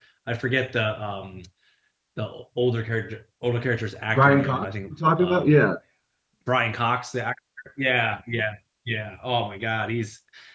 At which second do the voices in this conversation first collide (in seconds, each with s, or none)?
4.1 s